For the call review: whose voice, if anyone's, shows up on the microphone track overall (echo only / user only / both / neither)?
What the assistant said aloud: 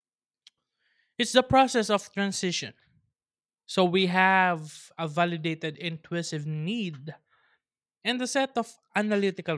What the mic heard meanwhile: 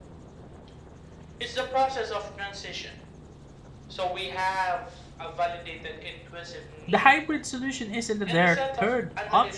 both